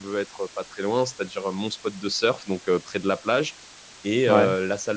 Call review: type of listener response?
listening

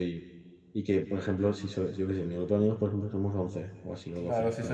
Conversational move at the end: taking over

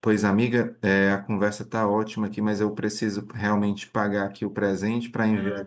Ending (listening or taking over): listening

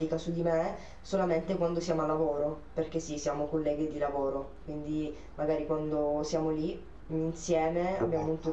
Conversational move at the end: listening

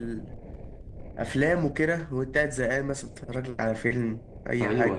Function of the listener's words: taking over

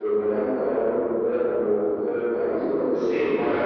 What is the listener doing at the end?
taking over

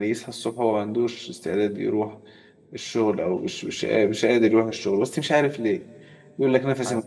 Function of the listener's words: listening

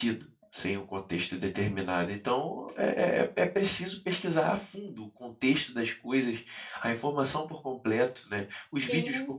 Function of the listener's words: listening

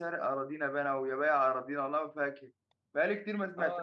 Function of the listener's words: taking over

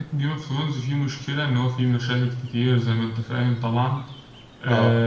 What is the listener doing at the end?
listening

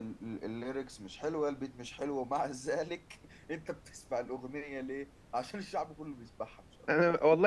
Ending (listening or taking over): taking over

